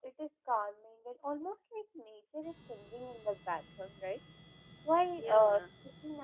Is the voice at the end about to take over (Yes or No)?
No